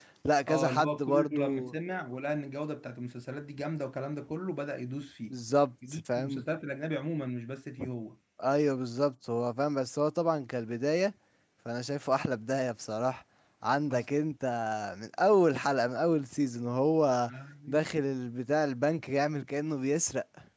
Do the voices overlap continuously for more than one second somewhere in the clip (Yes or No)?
Yes